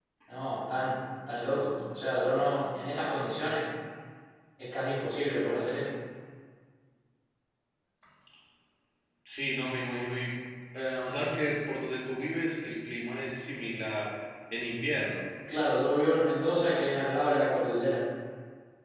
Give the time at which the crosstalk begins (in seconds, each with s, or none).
none